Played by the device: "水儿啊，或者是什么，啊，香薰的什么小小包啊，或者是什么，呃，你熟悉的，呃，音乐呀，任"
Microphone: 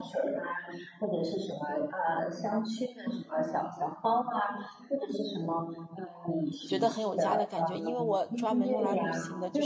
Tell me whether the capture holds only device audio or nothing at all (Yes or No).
No